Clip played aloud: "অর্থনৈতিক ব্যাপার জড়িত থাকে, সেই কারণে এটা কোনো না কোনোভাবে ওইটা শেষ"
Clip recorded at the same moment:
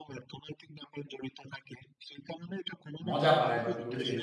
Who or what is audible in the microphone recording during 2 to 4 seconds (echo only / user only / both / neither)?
both